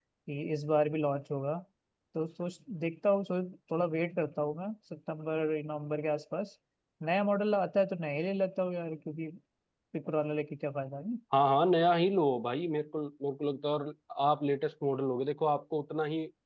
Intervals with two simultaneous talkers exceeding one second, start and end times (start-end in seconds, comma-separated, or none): none